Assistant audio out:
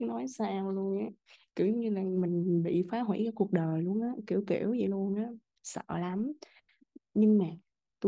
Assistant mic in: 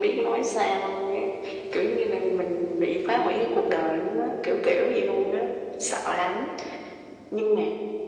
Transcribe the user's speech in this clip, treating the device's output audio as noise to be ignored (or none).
none